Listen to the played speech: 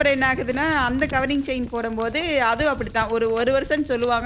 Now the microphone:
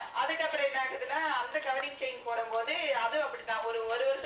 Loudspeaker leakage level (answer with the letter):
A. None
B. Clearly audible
B